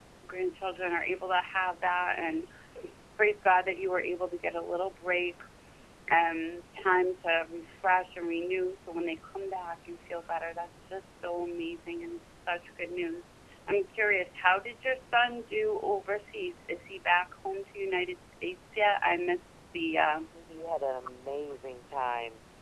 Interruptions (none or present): none